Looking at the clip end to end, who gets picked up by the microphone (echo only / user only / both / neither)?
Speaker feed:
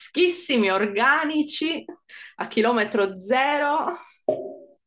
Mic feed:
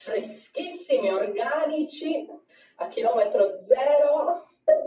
echo only